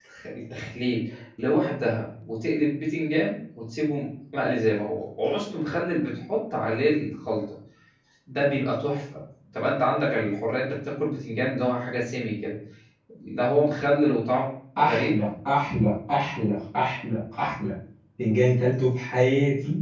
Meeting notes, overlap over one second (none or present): none